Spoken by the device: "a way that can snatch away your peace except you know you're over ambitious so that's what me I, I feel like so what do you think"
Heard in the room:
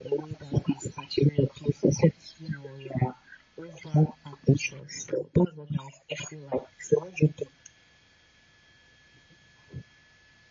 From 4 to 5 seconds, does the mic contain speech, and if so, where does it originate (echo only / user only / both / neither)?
echo only